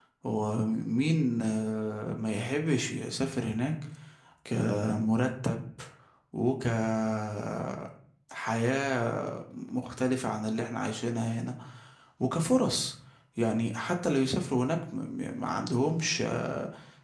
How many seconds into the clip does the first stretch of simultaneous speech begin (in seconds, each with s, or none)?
none